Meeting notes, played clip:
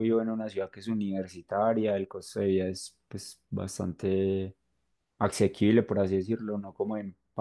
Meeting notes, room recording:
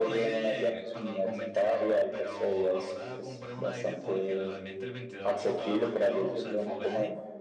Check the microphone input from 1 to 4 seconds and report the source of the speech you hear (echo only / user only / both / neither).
both